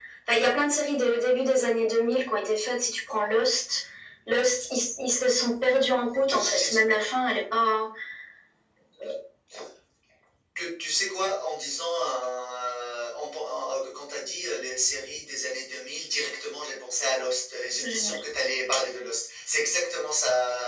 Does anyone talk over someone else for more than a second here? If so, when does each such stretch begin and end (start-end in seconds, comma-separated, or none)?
none